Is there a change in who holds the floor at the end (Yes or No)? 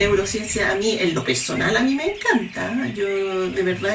No